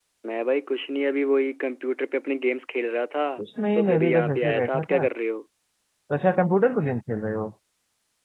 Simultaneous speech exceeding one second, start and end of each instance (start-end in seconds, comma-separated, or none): 3.7-5.1